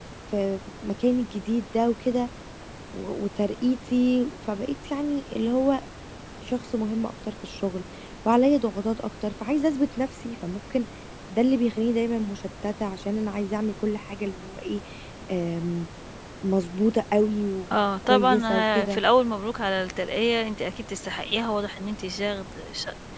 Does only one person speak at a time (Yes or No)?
No